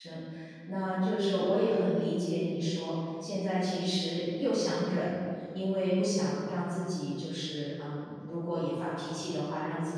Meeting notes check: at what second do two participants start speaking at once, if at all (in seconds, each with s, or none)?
none